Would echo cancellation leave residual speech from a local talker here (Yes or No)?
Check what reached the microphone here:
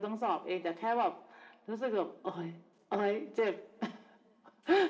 No